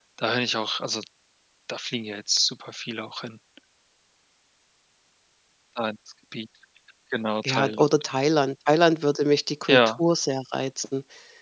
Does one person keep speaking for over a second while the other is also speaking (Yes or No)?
No